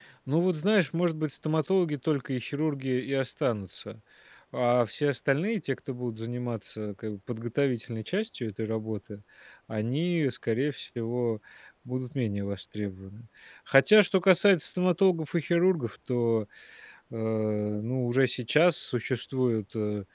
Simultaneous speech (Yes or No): No